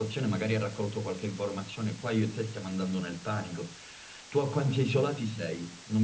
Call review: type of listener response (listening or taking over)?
listening